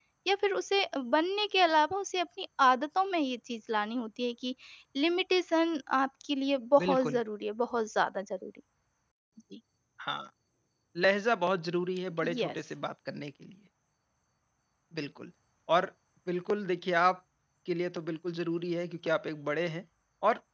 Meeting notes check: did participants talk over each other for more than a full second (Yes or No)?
No